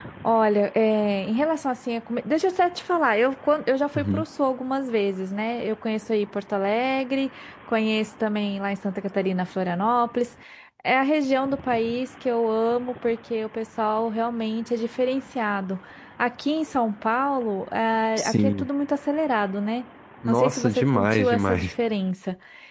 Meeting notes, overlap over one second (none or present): present